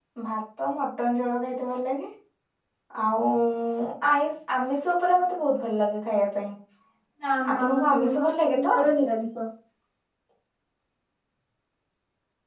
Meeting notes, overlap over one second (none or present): present